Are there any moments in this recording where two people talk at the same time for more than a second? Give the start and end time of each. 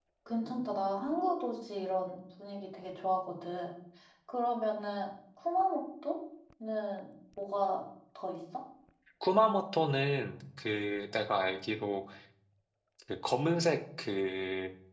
none

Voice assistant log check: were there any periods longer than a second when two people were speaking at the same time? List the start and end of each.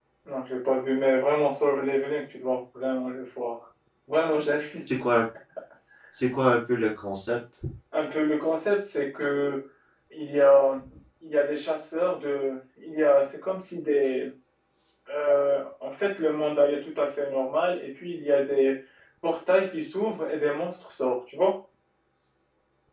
none

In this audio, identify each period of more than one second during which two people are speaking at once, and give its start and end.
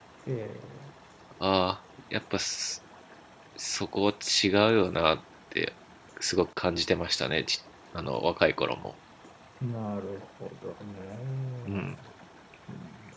none

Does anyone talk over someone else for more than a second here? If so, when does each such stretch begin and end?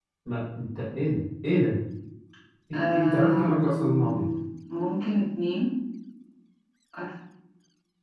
2.7-4.2

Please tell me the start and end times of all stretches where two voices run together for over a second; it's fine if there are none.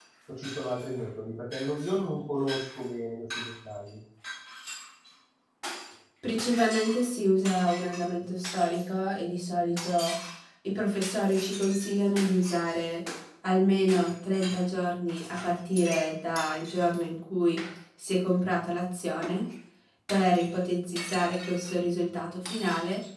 none

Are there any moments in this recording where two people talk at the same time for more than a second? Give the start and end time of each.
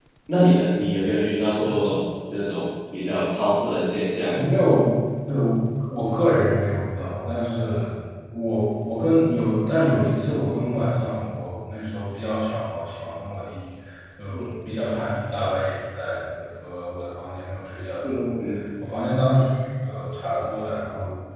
none

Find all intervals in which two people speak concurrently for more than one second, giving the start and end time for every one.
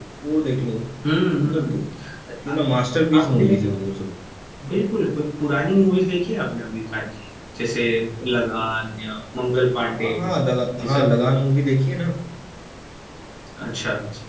none

